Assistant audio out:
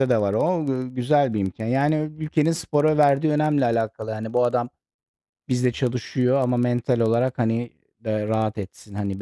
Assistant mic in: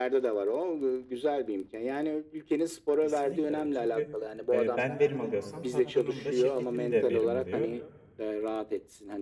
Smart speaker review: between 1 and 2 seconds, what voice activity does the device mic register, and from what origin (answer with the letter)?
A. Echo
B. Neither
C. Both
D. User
A